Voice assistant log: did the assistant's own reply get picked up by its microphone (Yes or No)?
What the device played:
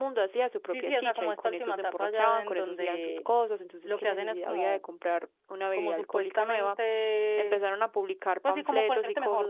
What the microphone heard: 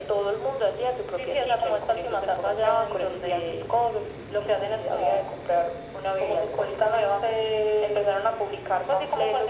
Yes